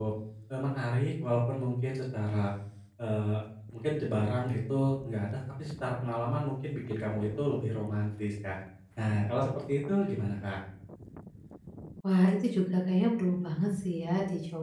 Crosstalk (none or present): none